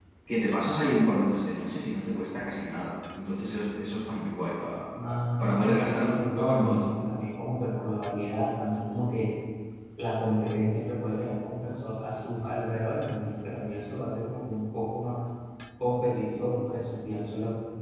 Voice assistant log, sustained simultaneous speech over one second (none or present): present